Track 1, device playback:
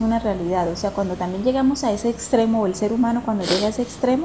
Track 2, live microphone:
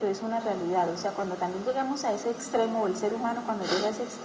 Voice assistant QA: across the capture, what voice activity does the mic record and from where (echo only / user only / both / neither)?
both